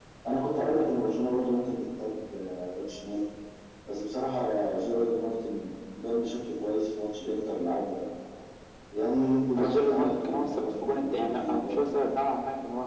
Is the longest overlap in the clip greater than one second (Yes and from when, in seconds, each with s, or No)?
Yes, from 9.6 s